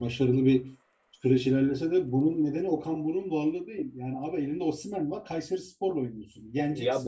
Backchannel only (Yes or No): No